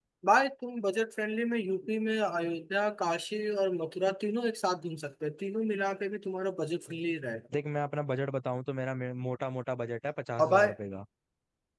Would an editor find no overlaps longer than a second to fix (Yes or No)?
Yes